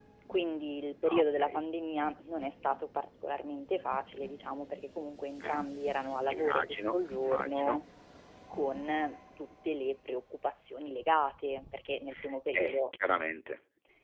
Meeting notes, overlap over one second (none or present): present